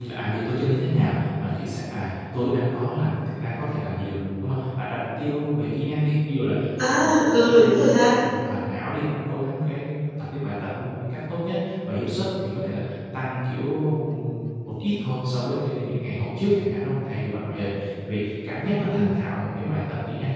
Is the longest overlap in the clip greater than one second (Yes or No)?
Yes